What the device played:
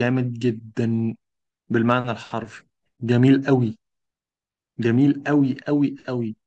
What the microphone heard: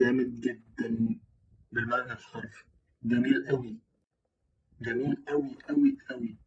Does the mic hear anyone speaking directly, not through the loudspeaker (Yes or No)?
No